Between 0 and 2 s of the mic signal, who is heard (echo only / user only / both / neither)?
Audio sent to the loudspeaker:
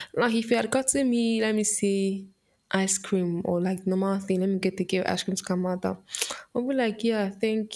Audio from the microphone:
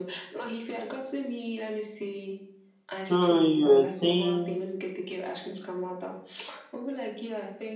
echo only